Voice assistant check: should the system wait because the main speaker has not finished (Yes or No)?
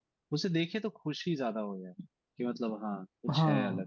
No